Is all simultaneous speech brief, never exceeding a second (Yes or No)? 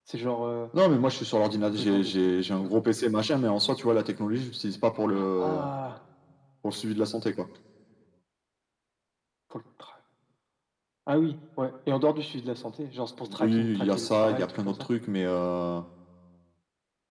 No